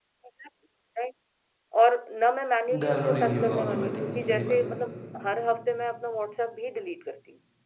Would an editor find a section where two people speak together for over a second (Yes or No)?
Yes